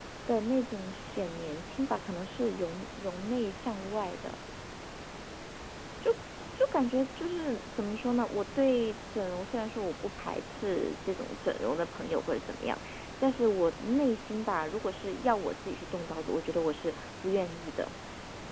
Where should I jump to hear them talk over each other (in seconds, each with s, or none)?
none